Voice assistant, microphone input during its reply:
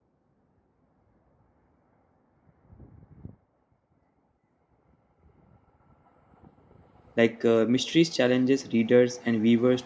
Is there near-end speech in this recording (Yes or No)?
Yes